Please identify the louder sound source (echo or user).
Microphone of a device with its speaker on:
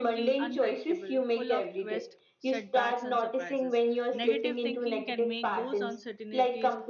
echo